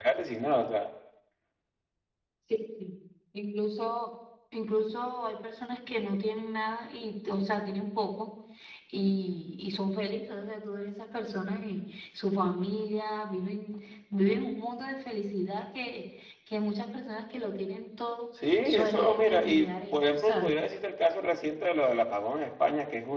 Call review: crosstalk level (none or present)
present